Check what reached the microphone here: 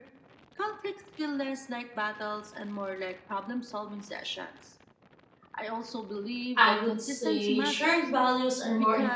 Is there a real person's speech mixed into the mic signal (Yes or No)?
Yes